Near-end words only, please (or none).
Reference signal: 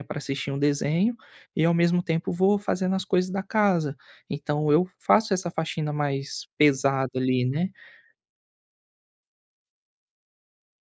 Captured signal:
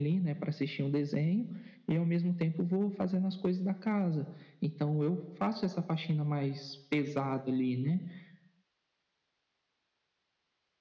none